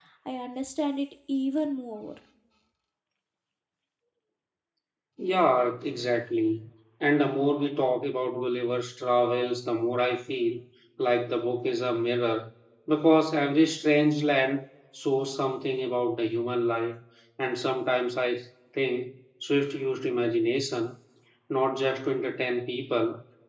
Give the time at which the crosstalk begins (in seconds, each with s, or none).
none